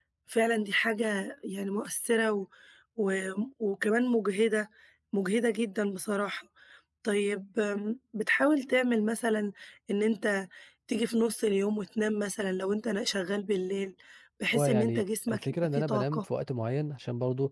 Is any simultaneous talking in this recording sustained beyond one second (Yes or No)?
Yes